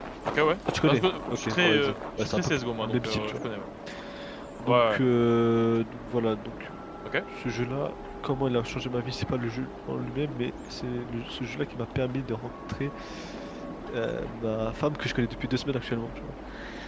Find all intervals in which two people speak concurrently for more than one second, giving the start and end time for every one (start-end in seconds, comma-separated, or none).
0.9-3.3